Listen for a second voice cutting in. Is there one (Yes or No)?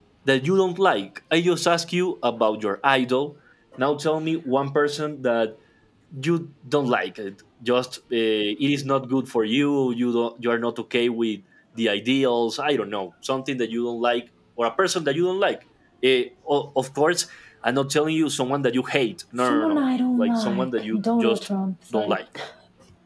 Yes